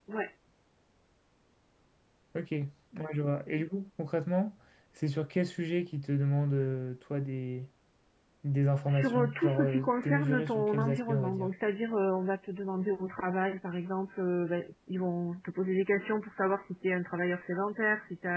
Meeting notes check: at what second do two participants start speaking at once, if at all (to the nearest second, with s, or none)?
9 s